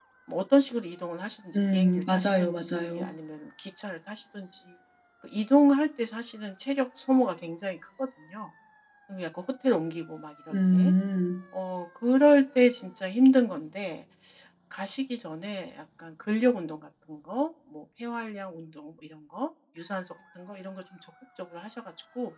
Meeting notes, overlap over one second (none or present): present